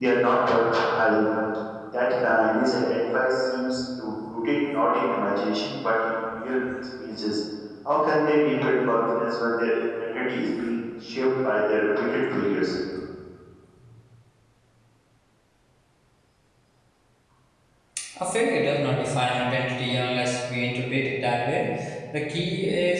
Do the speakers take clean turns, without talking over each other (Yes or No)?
Yes